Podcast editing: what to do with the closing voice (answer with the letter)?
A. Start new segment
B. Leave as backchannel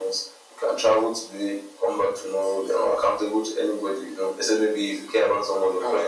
B